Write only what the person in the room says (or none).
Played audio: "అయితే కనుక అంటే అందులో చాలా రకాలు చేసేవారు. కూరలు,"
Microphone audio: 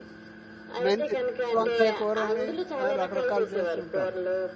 మెంతి వంకాయ కూరని ఆహ్, రకరకాలు చేస్తుంటారు.